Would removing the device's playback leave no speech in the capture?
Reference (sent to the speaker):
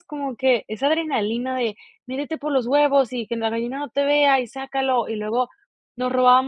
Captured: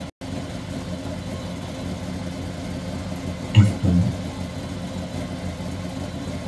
No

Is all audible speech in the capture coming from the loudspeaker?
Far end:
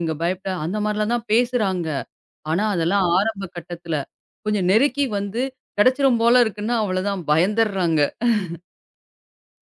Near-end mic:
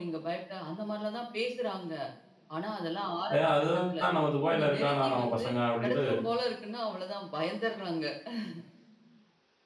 No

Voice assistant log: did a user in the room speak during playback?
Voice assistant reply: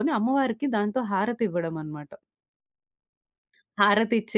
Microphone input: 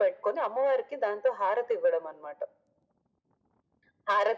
No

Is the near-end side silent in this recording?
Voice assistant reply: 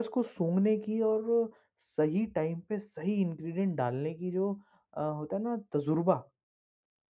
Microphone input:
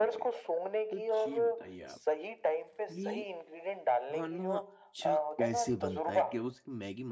No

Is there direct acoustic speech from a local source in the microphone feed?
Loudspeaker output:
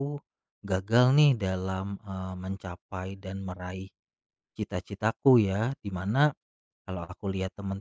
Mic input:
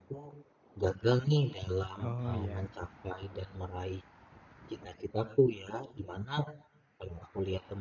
Yes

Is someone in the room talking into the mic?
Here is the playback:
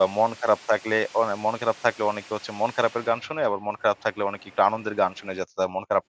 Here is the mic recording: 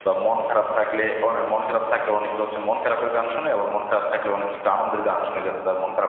No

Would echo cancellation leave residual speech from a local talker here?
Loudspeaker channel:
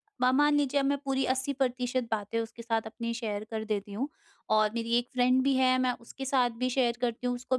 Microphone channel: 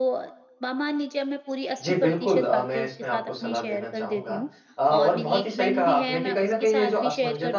Yes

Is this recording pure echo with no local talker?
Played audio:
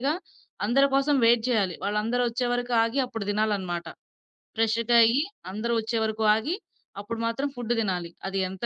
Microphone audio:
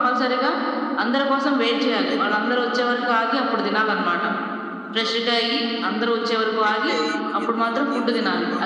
No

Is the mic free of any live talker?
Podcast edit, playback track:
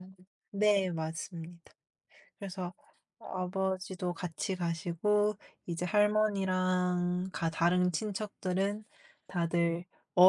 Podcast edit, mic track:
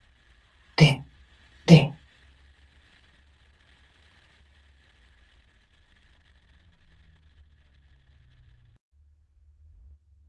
No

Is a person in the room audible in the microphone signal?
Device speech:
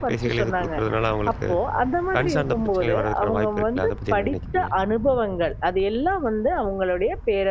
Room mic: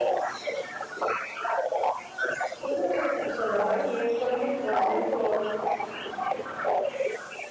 Yes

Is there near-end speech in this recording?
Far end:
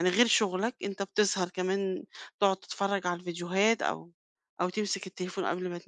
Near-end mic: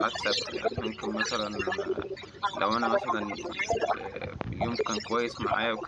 Yes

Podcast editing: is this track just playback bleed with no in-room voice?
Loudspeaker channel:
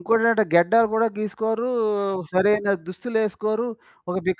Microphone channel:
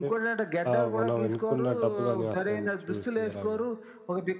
No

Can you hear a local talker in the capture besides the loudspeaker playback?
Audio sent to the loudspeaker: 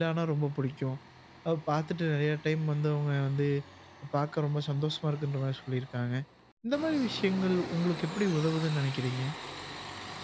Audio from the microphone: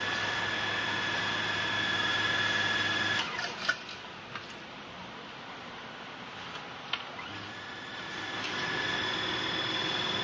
No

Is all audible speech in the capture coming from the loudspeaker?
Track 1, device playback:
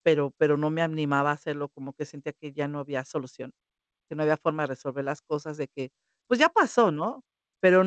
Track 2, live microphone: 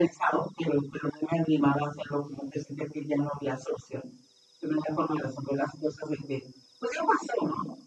Yes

